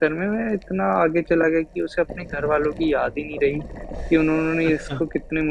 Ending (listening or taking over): listening